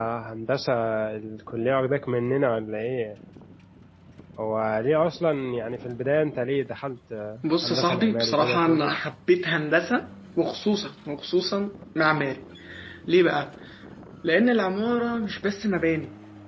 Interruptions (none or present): present